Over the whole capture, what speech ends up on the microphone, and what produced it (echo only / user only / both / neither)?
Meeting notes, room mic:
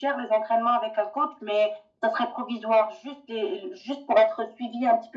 echo only